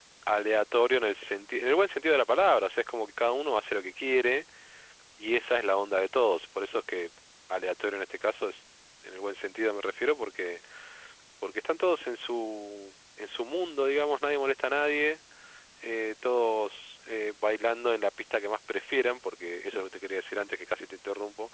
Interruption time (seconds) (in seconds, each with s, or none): none